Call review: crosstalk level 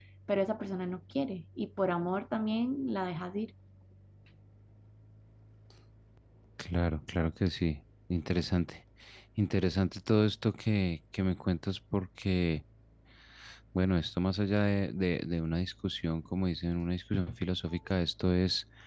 none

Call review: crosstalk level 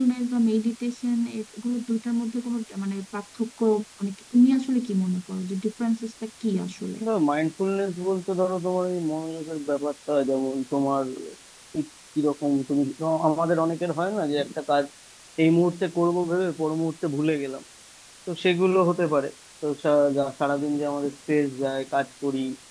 none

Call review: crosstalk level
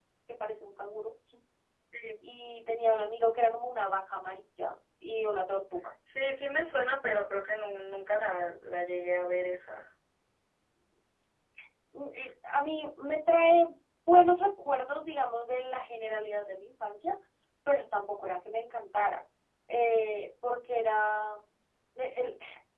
none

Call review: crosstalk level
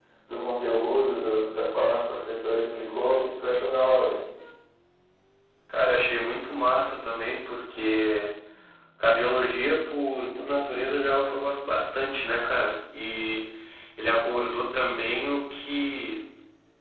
none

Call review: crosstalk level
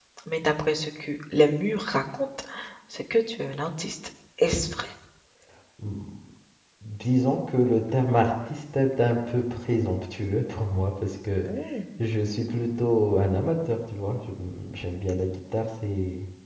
none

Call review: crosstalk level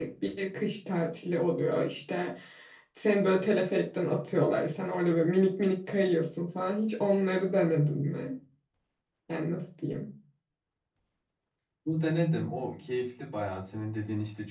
none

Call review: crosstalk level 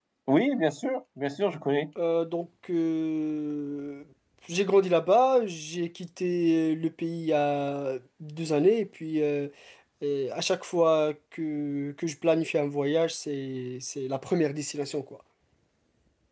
none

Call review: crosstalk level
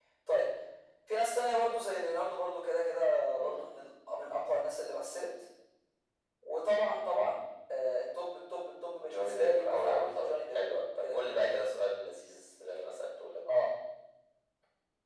present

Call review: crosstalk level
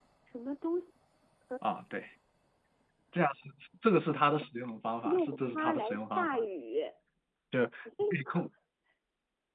present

